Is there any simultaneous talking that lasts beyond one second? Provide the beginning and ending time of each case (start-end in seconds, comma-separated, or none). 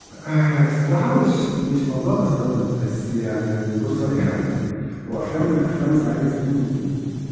none